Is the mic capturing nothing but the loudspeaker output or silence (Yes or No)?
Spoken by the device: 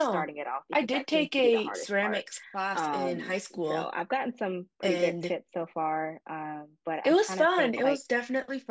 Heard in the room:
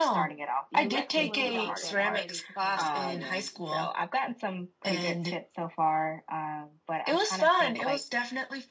No